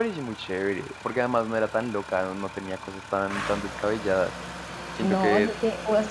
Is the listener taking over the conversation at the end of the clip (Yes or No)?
Yes